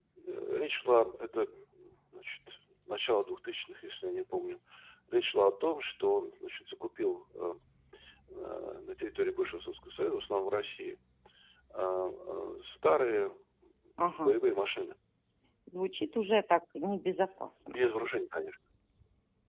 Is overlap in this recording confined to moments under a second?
Yes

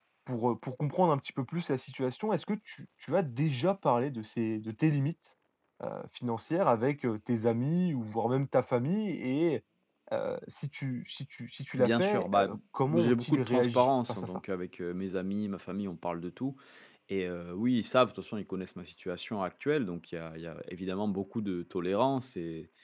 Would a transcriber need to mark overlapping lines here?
Yes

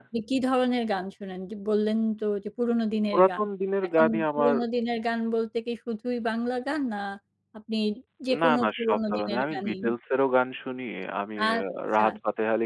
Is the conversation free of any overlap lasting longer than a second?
No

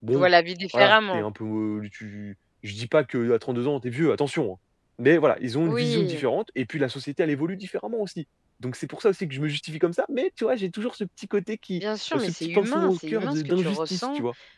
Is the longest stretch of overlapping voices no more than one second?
No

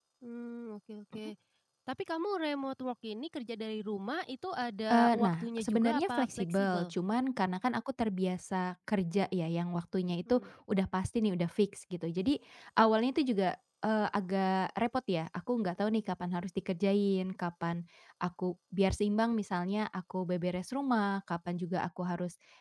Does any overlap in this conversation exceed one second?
Yes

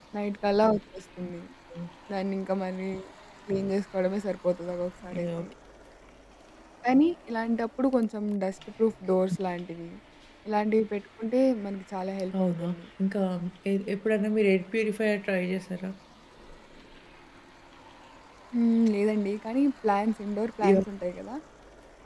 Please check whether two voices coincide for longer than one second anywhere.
No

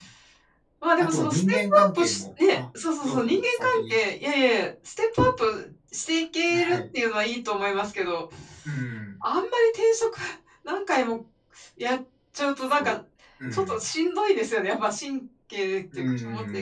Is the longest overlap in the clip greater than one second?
Yes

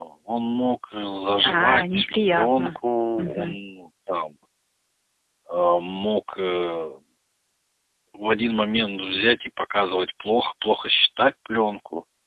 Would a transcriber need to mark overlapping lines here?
Yes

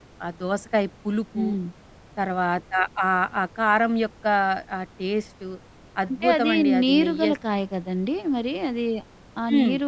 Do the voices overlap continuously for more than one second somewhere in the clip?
Yes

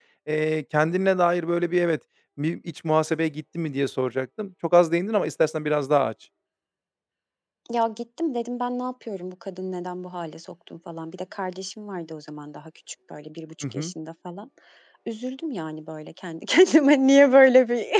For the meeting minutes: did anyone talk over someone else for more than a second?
No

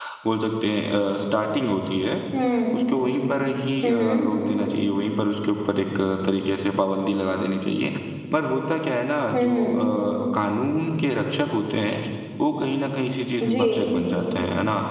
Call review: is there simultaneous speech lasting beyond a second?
No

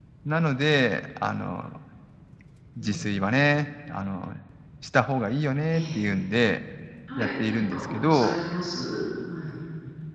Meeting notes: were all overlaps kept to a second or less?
No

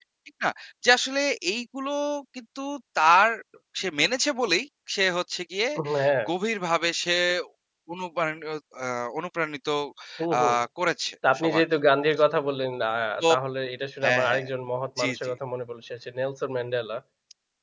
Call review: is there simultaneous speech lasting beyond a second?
No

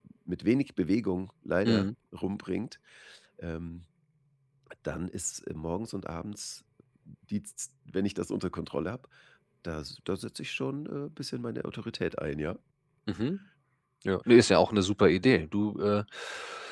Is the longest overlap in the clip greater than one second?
No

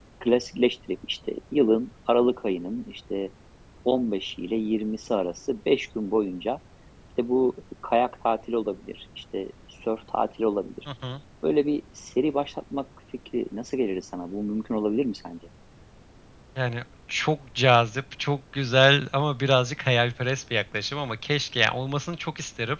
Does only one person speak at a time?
Yes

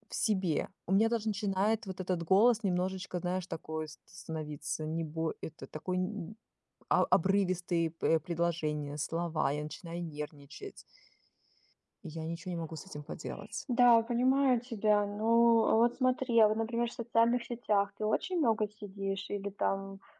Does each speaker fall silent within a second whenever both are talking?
Yes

